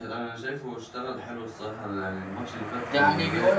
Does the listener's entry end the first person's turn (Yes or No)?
Yes